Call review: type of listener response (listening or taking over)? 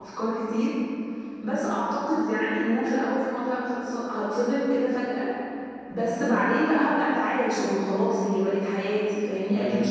taking over